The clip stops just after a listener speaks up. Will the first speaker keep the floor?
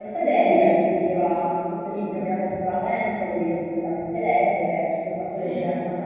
Yes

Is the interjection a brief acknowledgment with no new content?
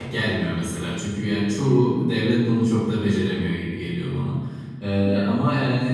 Yes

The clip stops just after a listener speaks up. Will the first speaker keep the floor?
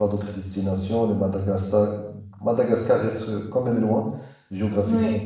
Yes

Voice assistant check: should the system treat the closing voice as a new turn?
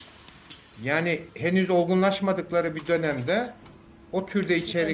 No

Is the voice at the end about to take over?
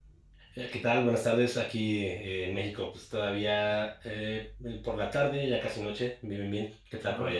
Yes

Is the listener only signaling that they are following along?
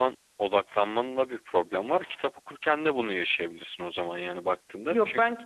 No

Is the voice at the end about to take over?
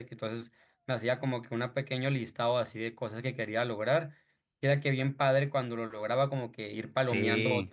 No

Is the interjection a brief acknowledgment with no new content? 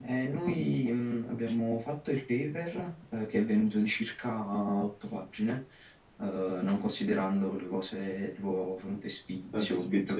Yes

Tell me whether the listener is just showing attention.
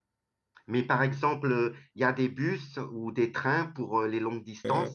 No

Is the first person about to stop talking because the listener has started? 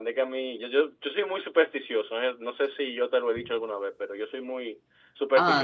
No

